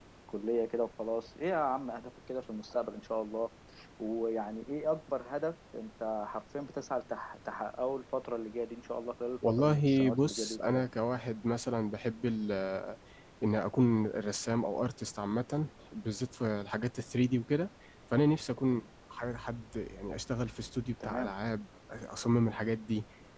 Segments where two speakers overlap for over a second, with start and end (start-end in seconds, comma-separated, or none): 9.5-10.9